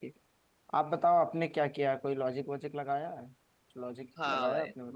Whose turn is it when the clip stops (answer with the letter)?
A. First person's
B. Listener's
B